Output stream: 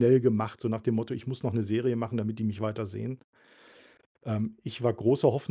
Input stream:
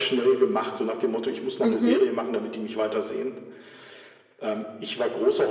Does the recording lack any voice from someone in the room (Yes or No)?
No